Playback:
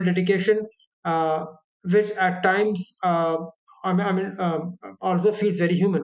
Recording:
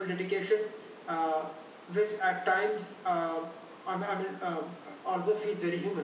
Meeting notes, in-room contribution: none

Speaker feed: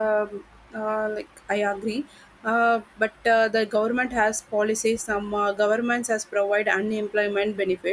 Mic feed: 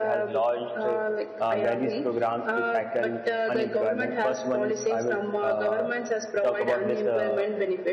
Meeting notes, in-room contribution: present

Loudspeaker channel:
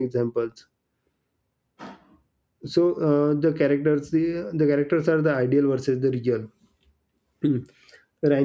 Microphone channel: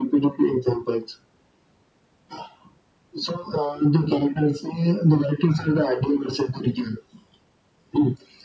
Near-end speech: none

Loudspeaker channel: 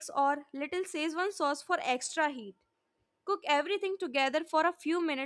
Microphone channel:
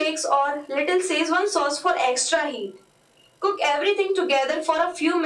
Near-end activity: none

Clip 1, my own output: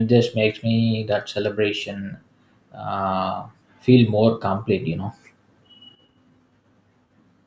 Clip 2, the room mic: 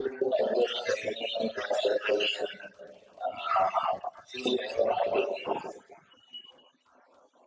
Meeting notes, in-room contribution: none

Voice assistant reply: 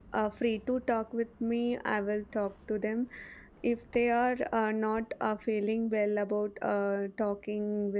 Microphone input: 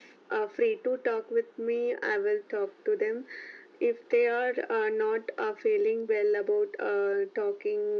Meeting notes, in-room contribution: none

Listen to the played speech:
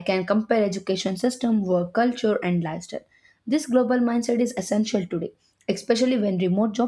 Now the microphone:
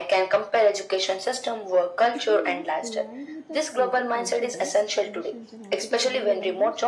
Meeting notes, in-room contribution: present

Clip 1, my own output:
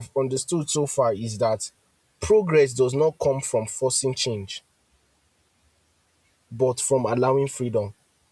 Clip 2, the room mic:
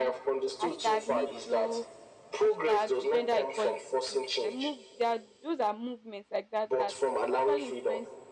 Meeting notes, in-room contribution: present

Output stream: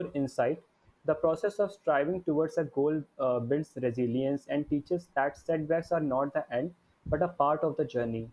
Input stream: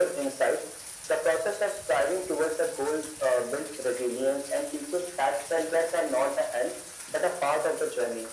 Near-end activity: none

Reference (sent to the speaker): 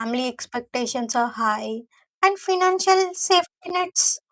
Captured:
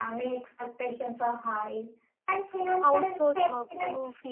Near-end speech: present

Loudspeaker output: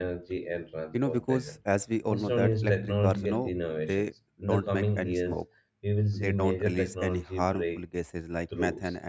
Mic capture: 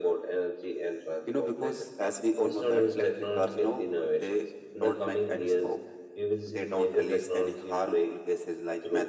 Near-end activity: none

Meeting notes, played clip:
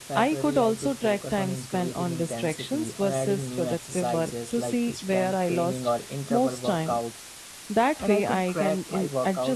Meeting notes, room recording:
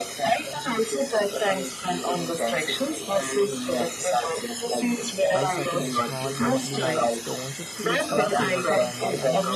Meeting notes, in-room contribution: present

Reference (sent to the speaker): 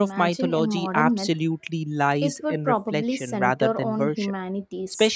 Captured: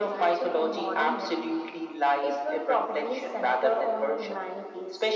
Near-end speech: none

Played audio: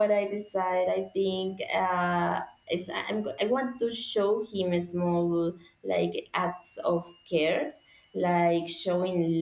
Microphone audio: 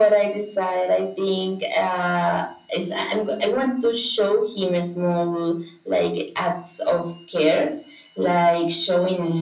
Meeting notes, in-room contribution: none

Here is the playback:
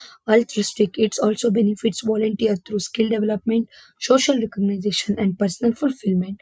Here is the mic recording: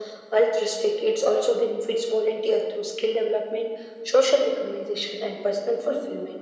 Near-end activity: none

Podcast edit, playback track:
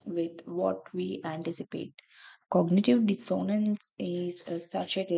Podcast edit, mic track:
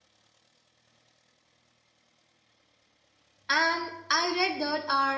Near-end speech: present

